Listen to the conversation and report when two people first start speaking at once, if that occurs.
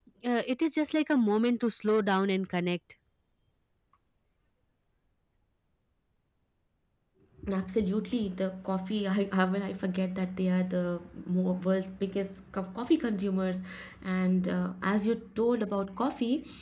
none

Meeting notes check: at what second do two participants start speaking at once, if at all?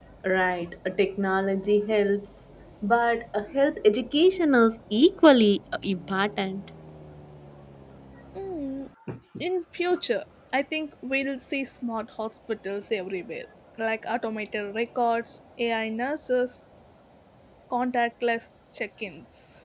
none

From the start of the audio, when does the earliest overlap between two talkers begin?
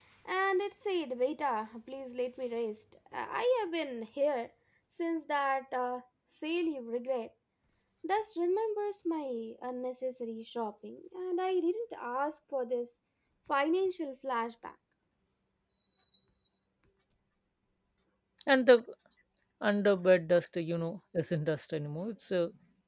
none

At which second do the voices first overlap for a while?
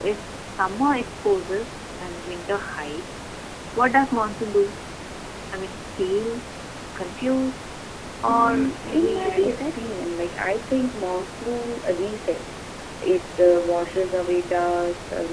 8.3 s

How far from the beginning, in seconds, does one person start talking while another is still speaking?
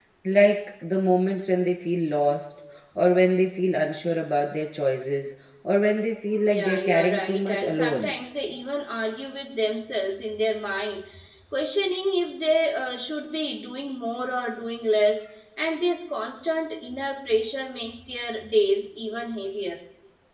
6.5 s

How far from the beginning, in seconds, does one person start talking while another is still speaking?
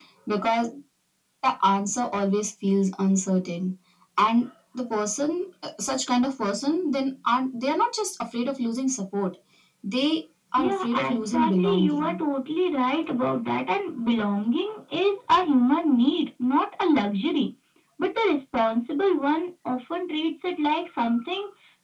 10.6 s

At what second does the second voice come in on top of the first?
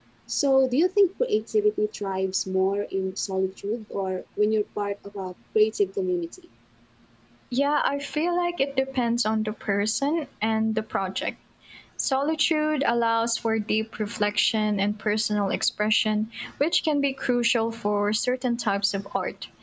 none

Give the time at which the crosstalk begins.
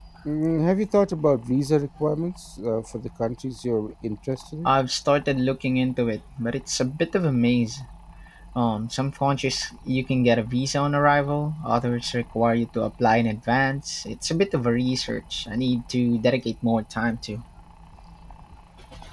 none

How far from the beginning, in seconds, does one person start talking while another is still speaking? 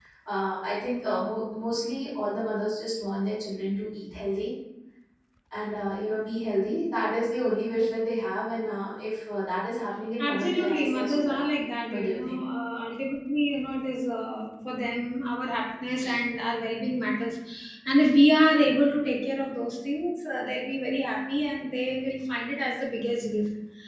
10.2 s

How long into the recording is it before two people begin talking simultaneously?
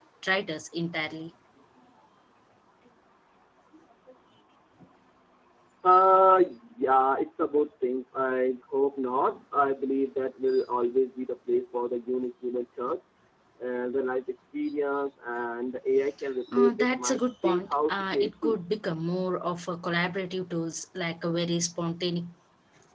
16.5 s

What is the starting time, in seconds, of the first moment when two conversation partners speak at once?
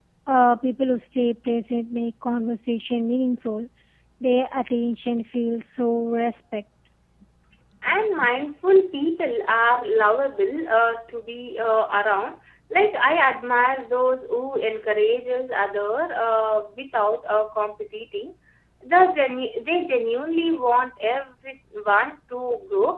none

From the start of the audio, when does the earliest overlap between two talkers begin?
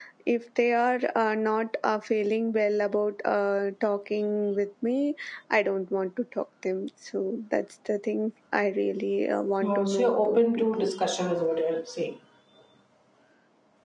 9.6 s

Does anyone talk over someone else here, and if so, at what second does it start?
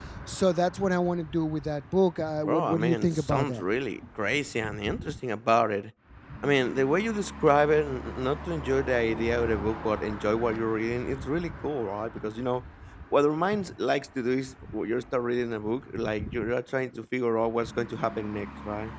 2.4 s

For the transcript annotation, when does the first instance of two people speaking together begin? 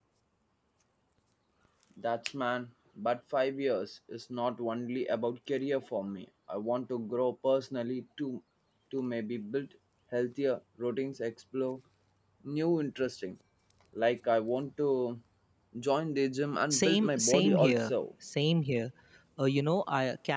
16.7 s

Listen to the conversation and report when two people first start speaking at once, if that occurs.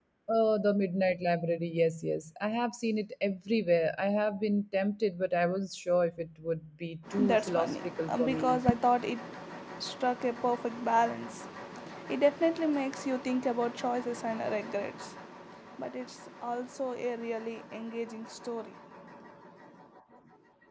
7.1 s

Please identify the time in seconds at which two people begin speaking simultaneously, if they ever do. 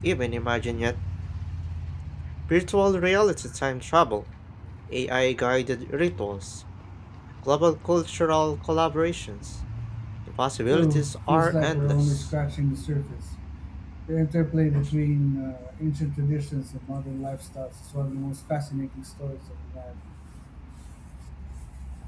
10.7 s

